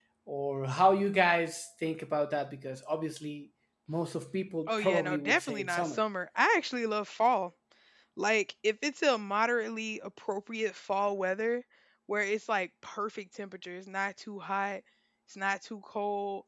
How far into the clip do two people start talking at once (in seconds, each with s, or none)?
4.7 s